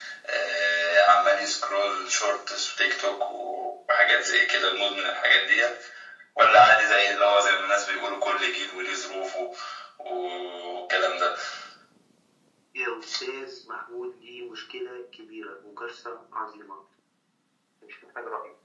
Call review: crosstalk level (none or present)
none